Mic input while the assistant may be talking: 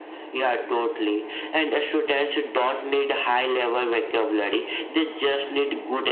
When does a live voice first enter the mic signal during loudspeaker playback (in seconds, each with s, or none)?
none